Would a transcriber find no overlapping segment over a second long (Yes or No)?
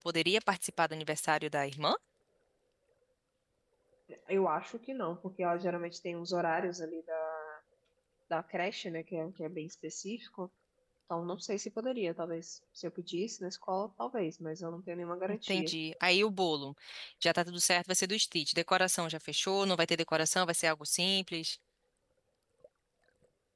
Yes